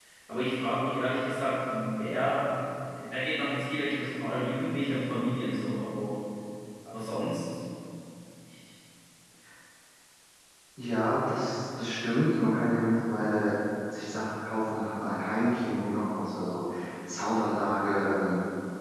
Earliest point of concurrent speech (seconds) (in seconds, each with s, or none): none